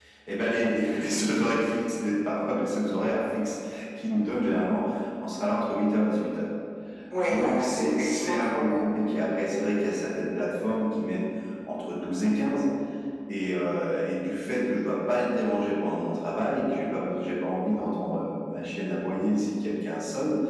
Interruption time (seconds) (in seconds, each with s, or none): 7.2 s